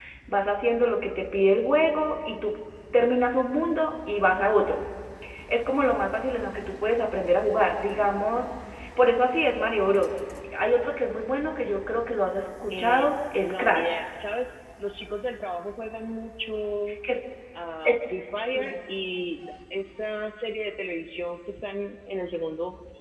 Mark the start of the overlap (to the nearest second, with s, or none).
13 s